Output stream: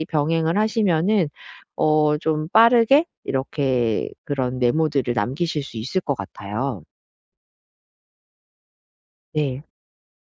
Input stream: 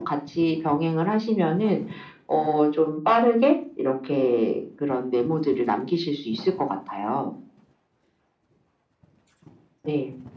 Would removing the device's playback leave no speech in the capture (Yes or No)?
Yes